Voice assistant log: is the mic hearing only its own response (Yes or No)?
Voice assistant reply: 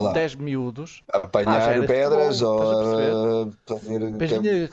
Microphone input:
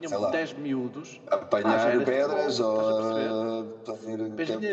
Yes